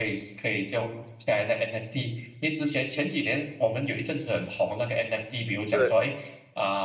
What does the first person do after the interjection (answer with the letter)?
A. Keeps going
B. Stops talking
A